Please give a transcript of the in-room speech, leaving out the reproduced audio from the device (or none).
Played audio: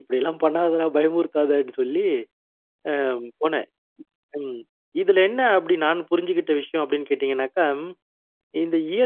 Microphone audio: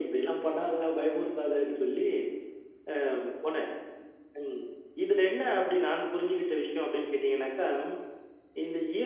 none